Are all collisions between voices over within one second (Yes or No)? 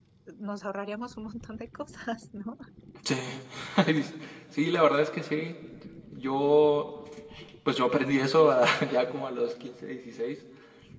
Yes